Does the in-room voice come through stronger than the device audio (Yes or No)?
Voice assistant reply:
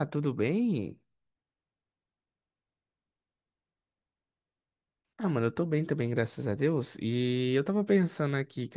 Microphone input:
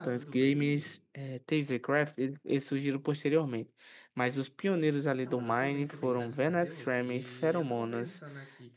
Yes